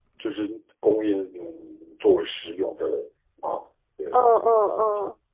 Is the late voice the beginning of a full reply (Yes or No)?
Yes